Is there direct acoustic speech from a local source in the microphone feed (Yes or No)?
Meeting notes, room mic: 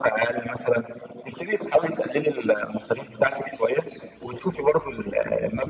No